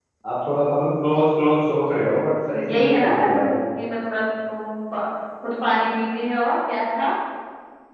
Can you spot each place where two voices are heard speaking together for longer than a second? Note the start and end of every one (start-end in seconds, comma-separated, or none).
2.3-3.5